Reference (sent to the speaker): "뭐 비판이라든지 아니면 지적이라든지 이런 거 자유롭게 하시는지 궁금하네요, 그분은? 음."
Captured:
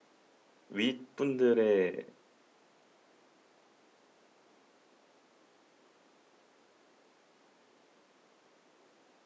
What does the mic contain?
user only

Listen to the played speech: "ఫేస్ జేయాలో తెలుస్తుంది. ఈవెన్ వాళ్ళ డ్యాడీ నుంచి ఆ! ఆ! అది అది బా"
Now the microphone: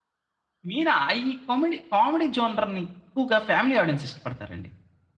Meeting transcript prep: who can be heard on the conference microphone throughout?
user only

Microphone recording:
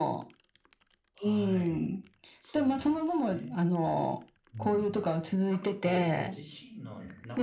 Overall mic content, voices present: both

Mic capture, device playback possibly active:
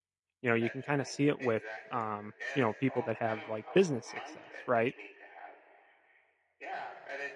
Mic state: both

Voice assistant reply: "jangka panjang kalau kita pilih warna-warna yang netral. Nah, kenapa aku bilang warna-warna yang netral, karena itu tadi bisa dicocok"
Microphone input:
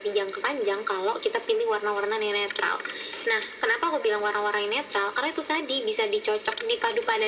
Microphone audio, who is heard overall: echo only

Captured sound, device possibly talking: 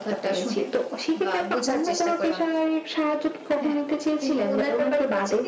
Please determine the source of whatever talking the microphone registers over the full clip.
echo only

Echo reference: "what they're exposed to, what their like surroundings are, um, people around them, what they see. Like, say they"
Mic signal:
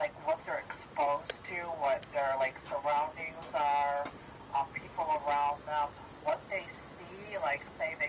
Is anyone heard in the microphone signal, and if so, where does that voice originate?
echo only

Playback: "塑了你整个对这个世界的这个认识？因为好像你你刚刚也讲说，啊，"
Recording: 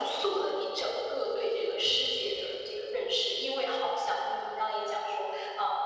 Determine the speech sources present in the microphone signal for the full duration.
echo only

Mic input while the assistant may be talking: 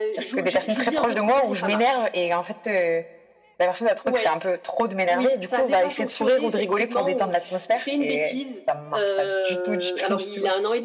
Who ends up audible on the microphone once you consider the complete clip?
echo only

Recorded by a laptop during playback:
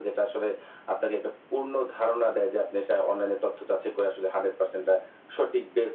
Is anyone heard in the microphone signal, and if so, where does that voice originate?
echo only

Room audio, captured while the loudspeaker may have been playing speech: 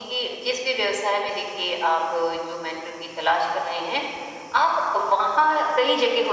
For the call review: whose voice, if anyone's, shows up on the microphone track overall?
echo only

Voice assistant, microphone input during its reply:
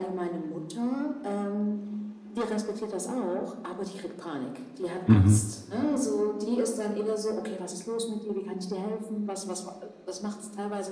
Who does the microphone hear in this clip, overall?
both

